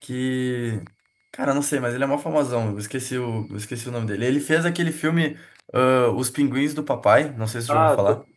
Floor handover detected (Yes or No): Yes